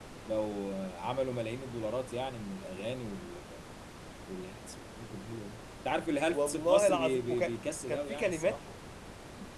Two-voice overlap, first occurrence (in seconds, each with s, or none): 6.3 s